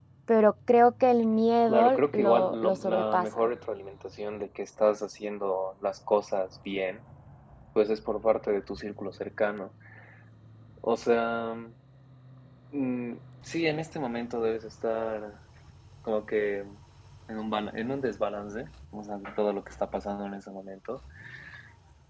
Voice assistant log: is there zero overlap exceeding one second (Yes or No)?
No